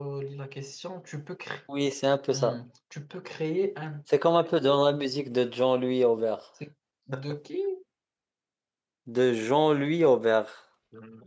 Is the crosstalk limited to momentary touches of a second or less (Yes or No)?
Yes